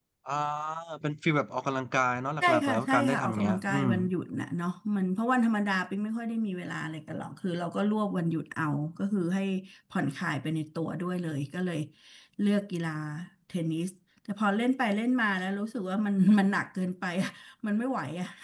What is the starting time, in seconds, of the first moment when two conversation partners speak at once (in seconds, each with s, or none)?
2.4 s